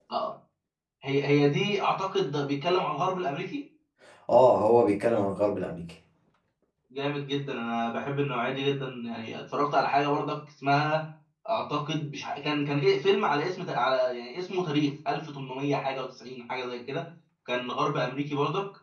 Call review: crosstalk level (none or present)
none